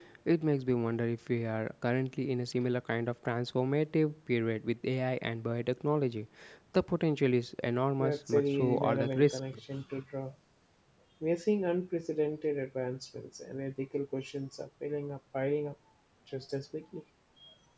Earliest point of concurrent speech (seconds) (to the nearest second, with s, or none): 8 s